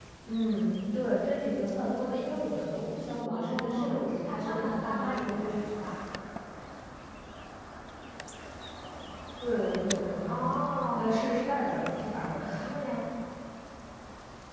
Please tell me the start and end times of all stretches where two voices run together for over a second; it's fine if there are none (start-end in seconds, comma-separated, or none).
3.3-5.5